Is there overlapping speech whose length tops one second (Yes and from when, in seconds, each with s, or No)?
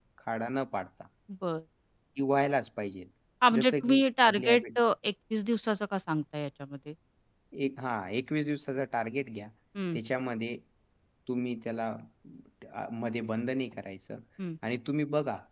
Yes, from 3.6 s